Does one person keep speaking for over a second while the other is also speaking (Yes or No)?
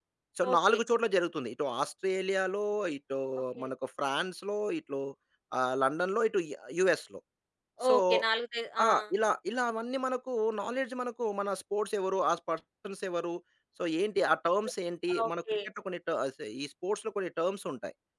No